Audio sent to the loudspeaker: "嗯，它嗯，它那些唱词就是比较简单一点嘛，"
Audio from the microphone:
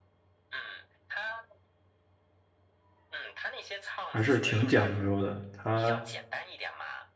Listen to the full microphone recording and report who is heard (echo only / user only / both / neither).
both